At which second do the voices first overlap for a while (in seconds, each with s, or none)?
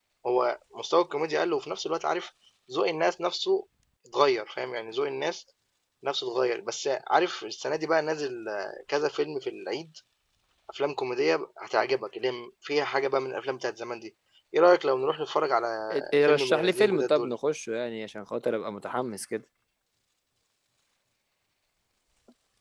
15.9 s